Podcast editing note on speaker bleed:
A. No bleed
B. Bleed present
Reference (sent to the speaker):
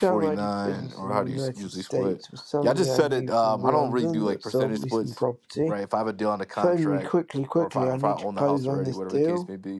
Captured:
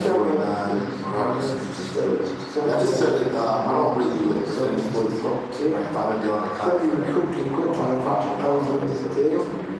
B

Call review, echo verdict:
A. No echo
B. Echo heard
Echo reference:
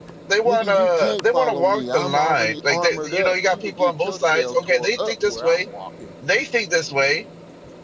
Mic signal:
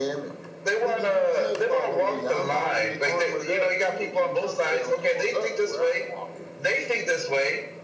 B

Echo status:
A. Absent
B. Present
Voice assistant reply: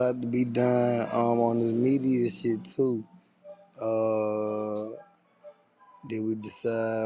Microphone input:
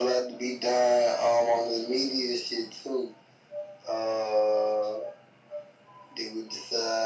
B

